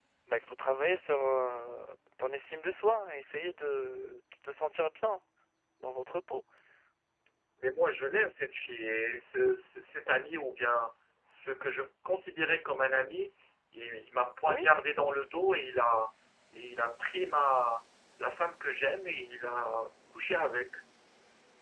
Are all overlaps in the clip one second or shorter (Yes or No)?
Yes